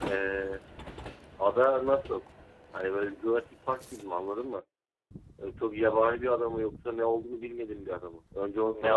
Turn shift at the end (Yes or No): Yes